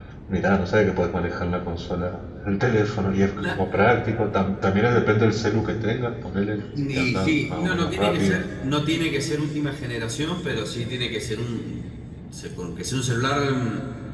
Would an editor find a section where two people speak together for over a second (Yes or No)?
Yes